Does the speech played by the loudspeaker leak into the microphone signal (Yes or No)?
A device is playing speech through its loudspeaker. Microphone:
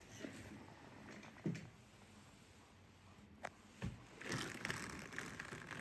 No